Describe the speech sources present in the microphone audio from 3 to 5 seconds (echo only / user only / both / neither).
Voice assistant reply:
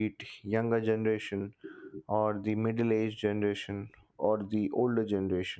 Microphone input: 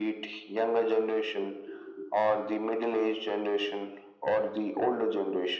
echo only